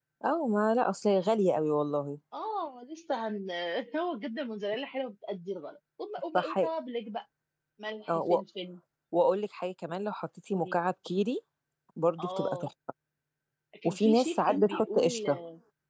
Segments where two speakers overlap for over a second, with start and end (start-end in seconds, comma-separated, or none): 13.8-15.3